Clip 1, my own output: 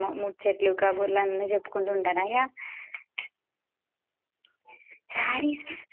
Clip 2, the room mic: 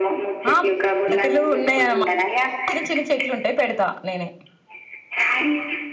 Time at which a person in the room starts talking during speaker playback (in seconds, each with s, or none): 0.5 s